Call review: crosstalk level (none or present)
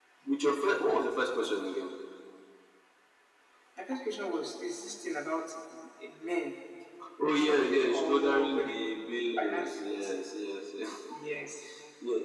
present